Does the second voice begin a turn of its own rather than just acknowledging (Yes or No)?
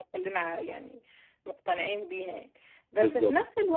No